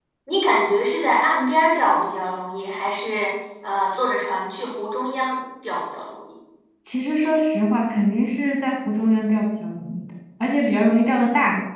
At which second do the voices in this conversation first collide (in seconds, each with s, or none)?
none